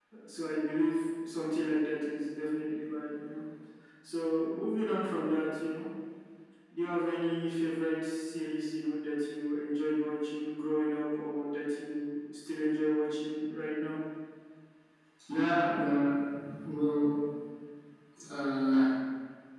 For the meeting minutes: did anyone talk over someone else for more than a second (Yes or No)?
No